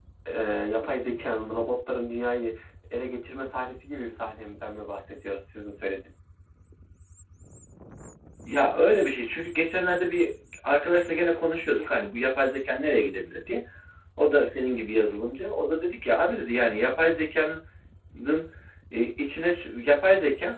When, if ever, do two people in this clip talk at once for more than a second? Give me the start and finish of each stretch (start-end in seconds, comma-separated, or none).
none